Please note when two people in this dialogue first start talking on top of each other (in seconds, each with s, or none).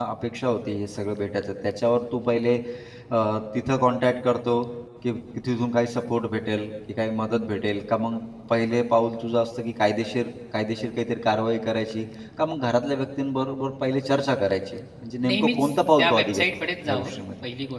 15.2 s